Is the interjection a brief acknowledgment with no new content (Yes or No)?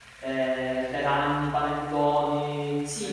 Yes